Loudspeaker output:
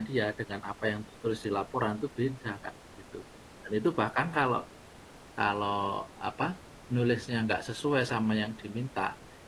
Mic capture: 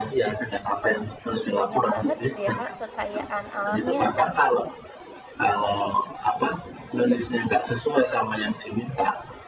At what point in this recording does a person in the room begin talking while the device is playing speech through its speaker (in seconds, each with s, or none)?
1.5 s